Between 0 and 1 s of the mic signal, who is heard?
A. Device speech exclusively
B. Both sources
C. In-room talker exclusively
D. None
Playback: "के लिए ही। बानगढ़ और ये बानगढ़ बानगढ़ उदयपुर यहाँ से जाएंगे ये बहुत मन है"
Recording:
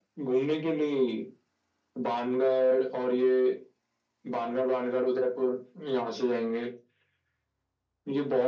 A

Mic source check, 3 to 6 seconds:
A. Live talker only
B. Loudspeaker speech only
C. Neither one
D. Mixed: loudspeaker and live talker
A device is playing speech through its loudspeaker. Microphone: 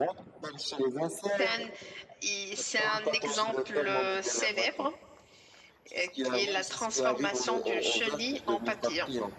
D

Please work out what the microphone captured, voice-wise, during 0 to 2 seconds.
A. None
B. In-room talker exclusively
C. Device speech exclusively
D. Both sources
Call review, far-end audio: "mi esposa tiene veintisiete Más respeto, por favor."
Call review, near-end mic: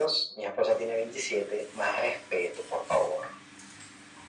C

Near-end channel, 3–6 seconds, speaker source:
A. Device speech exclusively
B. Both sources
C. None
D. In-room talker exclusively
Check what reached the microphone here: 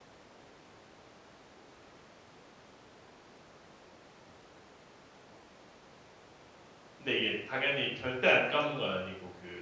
C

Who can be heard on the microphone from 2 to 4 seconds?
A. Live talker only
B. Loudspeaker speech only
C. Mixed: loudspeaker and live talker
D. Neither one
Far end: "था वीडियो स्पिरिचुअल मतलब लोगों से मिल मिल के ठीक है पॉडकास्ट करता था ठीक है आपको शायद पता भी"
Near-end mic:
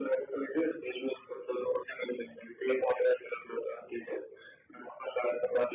B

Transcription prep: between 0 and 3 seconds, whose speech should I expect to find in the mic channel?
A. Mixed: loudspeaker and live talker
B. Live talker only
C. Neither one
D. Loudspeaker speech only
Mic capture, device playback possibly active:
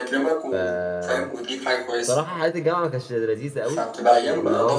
A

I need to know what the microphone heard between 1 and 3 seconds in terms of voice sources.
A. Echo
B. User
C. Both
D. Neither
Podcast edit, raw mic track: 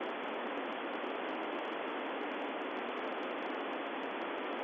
D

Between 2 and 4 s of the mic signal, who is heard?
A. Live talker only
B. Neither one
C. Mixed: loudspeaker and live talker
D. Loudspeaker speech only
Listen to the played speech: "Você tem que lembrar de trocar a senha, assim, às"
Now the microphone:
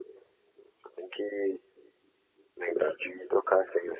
D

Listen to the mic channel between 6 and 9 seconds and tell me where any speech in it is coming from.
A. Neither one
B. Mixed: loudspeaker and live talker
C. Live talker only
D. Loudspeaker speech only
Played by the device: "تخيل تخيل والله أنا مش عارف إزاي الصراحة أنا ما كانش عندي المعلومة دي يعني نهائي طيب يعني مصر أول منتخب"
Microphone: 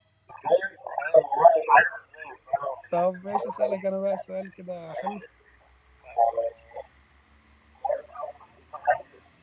D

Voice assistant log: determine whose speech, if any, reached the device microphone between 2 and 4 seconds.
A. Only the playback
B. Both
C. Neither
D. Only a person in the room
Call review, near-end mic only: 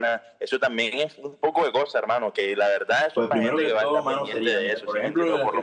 B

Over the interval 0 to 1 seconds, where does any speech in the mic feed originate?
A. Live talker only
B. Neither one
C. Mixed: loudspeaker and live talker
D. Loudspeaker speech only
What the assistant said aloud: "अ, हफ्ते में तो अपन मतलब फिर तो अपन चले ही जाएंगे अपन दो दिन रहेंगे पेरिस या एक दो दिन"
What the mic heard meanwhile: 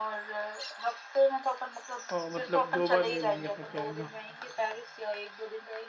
D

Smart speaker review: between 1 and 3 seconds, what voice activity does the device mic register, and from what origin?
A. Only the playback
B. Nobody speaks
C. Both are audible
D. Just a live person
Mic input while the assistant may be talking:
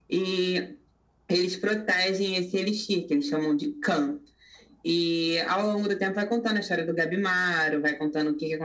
A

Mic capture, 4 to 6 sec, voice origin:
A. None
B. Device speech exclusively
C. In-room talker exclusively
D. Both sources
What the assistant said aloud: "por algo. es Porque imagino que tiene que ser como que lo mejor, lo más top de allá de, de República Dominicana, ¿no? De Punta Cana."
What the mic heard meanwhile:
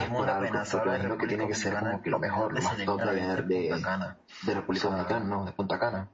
D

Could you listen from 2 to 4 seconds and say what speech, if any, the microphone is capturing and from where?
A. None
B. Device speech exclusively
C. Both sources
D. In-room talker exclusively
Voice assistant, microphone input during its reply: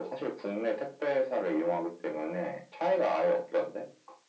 B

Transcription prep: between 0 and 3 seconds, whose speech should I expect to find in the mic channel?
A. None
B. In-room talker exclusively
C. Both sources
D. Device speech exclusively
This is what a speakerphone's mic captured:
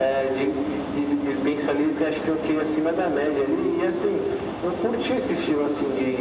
D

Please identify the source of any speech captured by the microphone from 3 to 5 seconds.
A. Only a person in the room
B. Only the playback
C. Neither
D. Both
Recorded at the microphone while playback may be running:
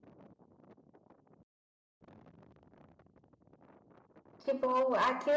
A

